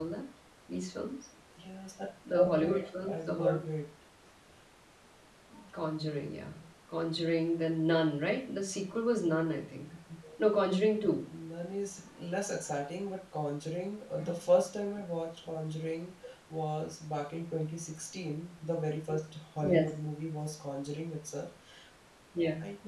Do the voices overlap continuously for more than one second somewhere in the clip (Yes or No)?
Yes